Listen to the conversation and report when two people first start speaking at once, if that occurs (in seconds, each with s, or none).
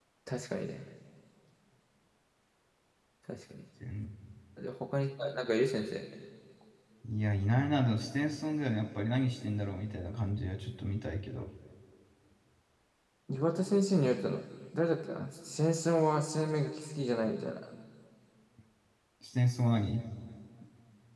none